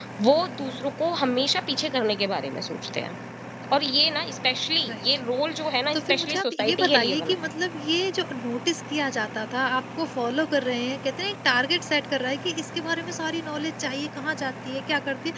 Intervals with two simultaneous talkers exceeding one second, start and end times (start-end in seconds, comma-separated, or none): 5.9-7.5